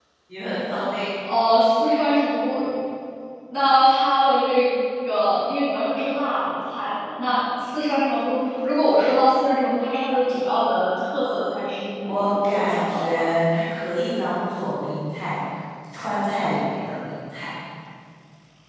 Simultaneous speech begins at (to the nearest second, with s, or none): 12 s